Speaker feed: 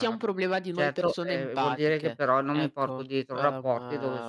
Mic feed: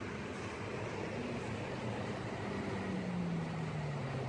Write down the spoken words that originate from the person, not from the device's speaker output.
none

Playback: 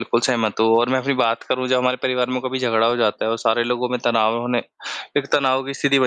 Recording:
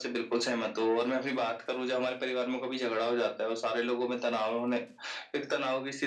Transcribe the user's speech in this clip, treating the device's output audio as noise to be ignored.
none

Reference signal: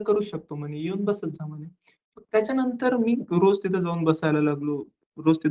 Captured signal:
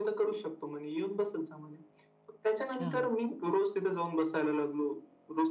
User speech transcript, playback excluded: अच्छा.

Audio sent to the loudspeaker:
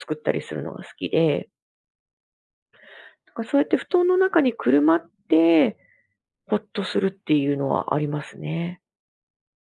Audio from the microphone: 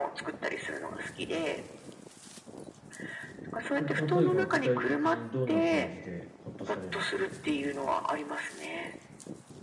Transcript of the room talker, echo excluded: え、例えば具体的にどんな感じでほっとされるんですか？

